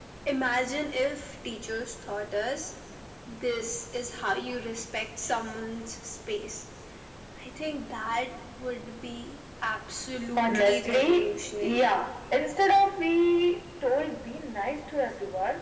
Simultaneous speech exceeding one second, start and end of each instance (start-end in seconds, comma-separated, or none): 10.4-11.9